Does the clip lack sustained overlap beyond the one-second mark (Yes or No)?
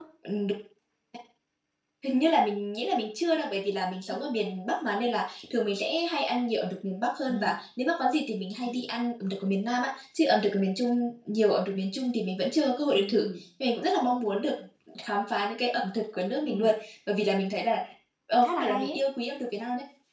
Yes